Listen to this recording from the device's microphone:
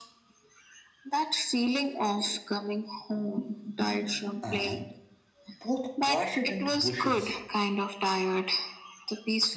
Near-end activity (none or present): present